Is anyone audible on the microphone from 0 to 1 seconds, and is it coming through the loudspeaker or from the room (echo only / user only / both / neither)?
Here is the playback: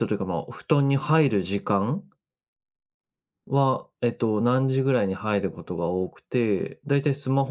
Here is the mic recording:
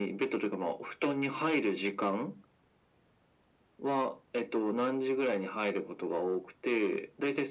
echo only